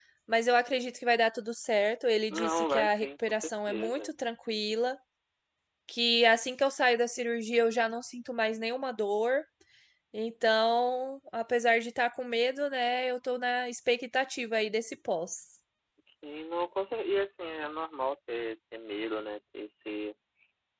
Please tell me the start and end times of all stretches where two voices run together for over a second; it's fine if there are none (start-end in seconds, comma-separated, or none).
2.3-4.1